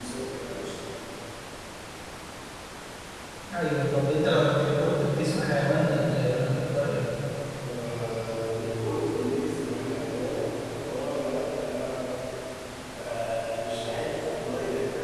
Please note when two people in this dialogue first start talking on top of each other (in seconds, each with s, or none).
none